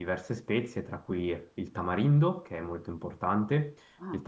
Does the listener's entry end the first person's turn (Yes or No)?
No